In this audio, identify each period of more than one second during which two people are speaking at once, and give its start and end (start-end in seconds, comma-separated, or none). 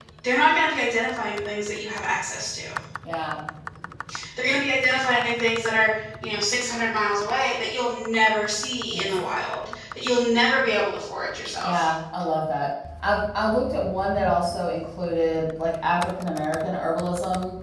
none